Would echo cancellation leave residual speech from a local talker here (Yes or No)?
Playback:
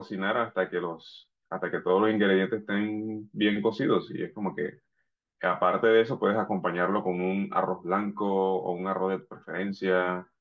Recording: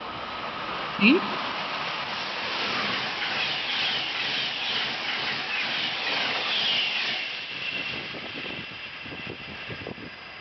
Yes